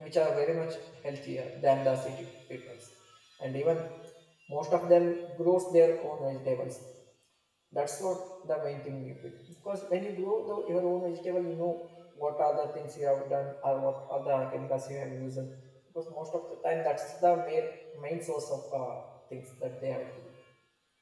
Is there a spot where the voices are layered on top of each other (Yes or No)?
No